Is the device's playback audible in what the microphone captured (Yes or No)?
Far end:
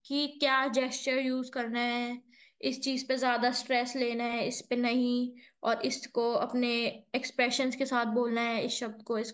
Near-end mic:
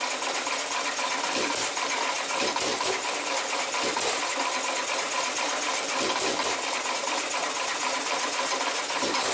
No